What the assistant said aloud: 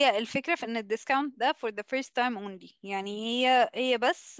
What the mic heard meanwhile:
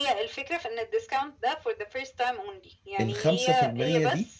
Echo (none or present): present